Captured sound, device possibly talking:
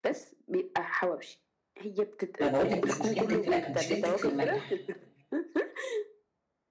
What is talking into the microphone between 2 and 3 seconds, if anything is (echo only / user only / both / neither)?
both